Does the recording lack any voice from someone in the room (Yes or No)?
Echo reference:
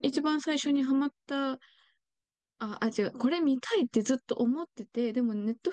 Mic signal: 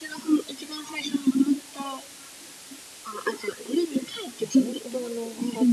No